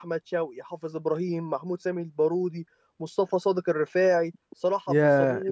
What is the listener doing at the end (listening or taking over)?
taking over